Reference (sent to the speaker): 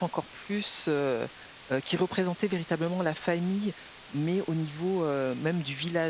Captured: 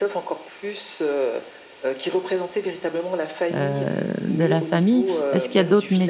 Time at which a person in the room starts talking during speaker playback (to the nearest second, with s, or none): 4 s